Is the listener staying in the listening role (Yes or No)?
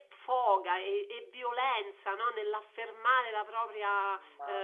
No